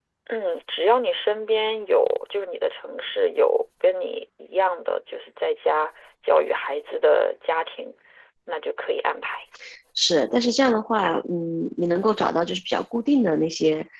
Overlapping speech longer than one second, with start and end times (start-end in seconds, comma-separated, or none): none